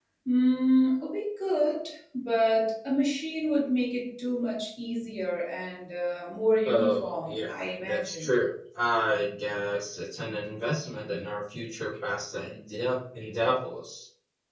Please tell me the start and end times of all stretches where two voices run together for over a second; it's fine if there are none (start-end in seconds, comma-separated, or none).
6.7-8.3